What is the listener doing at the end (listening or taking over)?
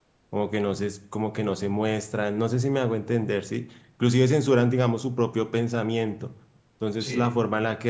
listening